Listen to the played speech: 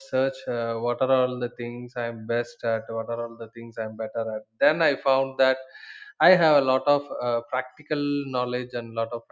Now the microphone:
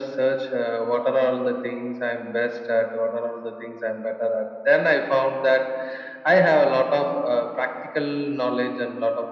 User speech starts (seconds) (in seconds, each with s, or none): none